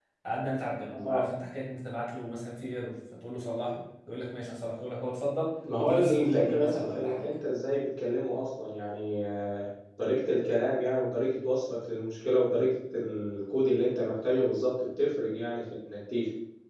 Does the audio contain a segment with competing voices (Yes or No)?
Yes